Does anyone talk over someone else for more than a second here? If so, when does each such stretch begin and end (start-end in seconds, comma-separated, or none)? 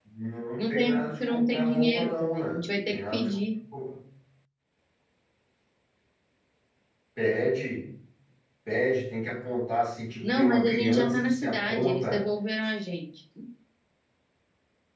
0.6-3.4, 10.2-12.3